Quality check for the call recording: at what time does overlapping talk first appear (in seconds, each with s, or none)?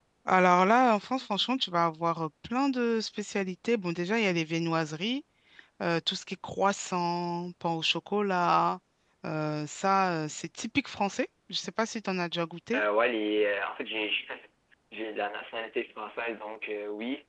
none